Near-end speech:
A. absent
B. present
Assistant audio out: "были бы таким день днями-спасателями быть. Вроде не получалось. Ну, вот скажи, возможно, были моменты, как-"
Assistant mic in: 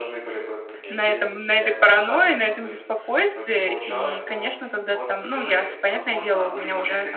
B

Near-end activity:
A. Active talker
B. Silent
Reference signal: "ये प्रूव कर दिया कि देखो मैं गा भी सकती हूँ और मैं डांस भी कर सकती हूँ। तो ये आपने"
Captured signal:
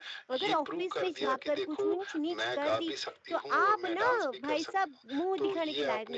A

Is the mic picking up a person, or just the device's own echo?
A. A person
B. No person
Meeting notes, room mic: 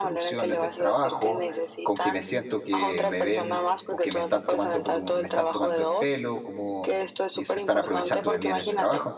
A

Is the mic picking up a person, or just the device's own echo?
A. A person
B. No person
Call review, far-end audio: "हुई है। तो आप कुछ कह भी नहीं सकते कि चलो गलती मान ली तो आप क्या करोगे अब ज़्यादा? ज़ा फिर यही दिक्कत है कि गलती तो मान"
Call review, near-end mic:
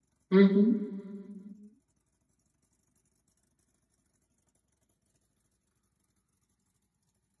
A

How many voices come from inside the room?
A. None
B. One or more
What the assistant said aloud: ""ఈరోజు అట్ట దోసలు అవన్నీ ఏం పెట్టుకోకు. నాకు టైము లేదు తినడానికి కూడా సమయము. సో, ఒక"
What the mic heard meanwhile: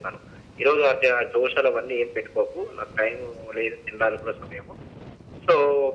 A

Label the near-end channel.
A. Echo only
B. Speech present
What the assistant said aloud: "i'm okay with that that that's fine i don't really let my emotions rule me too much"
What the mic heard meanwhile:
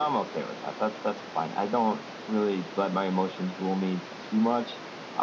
A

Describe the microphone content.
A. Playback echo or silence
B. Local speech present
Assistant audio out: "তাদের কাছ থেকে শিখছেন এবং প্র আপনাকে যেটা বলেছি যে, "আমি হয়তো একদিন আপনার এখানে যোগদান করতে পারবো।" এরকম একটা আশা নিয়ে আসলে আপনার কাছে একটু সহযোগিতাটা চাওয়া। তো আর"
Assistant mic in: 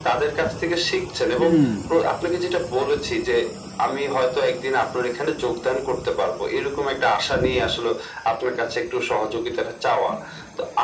B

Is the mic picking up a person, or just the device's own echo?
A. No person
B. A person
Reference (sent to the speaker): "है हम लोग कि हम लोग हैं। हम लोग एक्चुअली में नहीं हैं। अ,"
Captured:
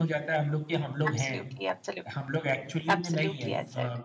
B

